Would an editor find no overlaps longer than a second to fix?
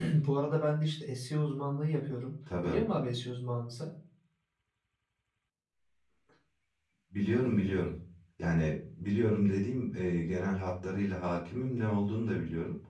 Yes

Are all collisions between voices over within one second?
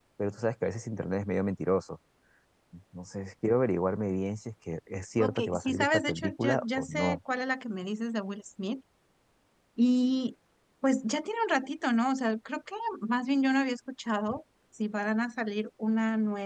No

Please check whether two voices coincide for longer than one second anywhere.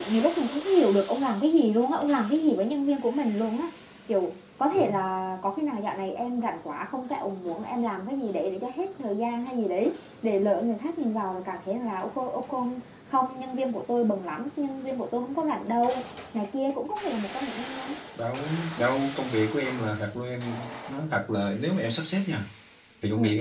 No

